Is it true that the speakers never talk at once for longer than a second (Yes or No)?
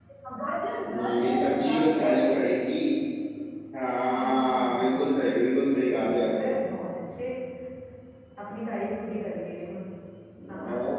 No